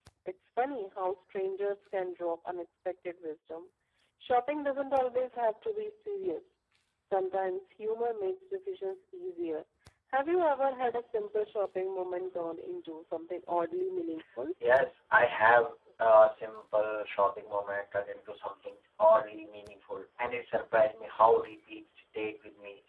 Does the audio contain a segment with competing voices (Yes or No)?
No